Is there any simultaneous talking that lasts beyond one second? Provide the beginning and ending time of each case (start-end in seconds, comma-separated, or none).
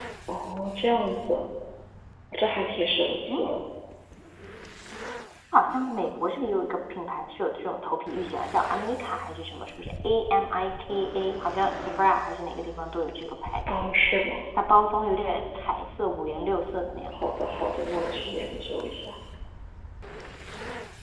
none